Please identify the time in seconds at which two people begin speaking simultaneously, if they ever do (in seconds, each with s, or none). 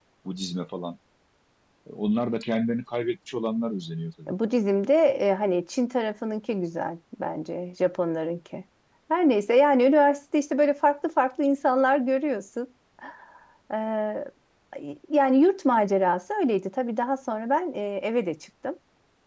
none